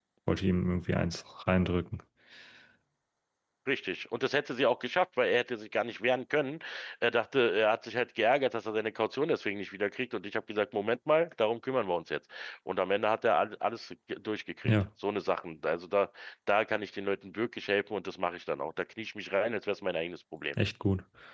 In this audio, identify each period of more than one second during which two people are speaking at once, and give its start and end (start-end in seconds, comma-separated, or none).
none